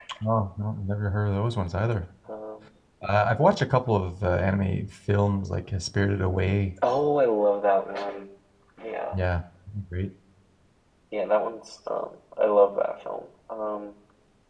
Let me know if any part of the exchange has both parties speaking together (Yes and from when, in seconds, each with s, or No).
No